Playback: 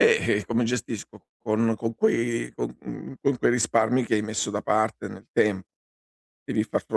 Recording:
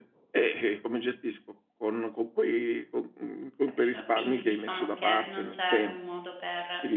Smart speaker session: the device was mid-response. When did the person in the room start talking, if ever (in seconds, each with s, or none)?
3.6 s